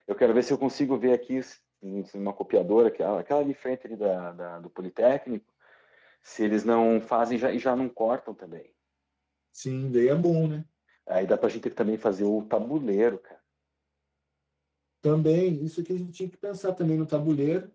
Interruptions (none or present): none